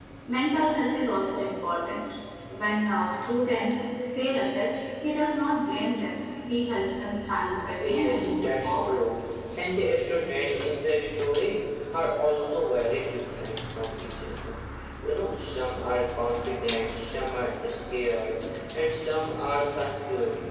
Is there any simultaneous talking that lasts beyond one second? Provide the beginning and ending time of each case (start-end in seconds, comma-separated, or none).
7.8-9.0